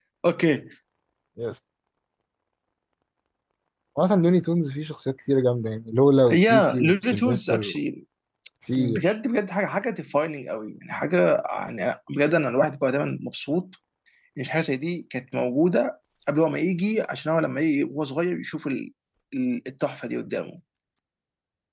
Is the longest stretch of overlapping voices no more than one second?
No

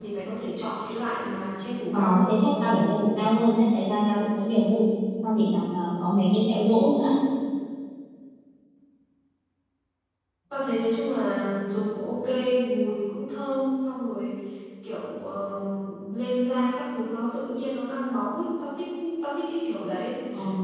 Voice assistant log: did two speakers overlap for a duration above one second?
No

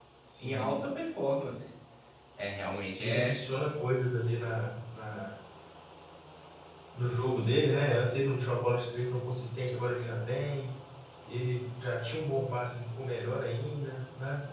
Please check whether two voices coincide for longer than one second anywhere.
No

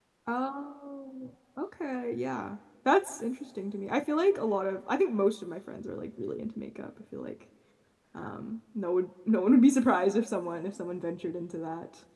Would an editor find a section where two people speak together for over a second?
No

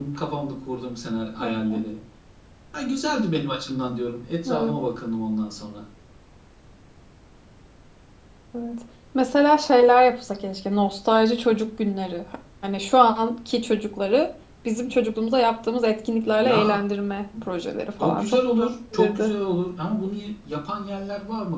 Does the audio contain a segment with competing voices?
Yes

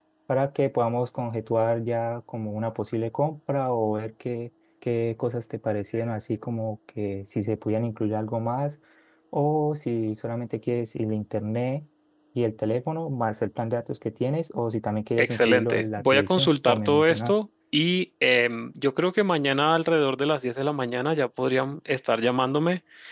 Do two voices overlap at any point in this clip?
Yes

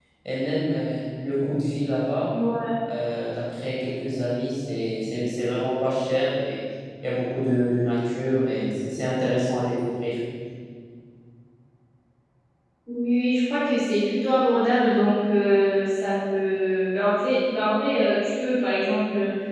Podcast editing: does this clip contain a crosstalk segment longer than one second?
No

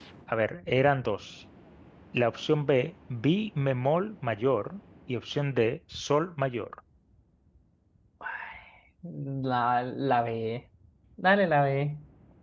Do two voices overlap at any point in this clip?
No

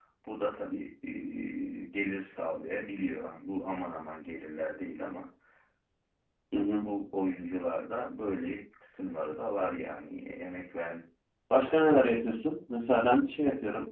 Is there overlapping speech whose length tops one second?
No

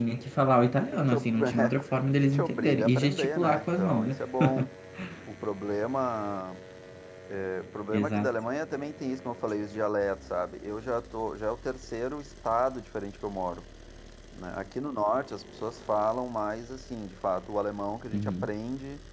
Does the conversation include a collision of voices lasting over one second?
Yes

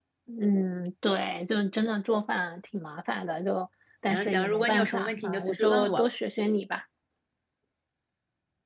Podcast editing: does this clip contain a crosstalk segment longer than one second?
Yes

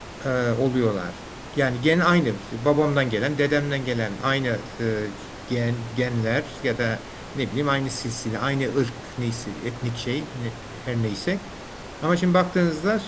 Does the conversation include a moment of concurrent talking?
No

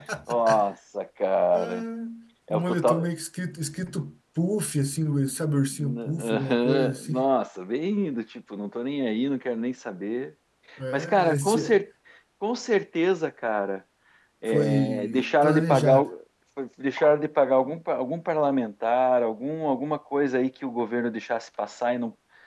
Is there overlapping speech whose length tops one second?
Yes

